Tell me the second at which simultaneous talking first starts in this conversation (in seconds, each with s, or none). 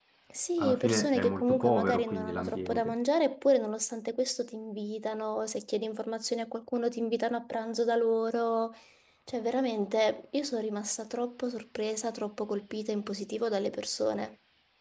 0.6 s